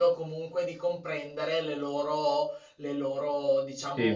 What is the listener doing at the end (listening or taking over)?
taking over